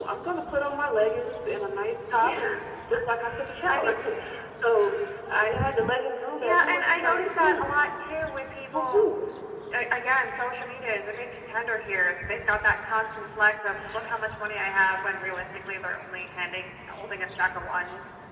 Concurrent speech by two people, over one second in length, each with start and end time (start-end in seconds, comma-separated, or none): 6.4-7.9